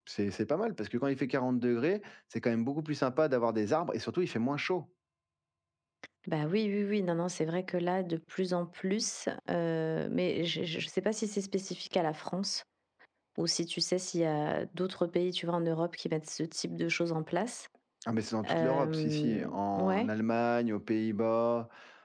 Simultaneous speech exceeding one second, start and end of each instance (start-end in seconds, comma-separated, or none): 18.5-20.1